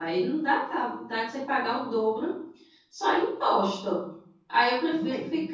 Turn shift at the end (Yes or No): No